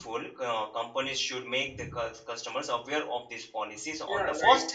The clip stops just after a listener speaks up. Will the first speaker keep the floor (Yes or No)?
No